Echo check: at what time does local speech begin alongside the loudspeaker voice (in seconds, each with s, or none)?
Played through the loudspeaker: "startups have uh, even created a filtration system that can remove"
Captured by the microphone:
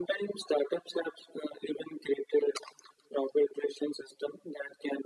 none